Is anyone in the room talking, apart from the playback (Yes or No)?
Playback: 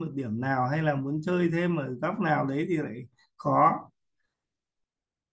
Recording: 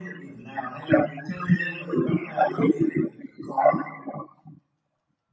No